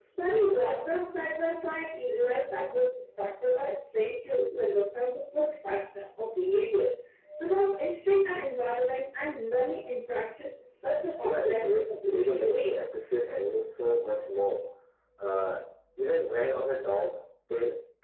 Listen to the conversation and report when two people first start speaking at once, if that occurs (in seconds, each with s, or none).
11.2 s